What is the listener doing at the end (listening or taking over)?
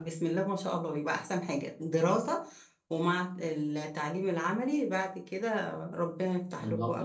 taking over